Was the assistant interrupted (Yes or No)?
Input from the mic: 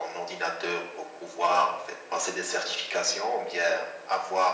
No